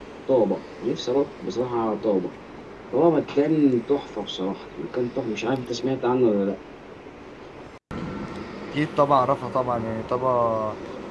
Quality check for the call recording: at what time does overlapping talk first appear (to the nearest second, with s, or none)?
none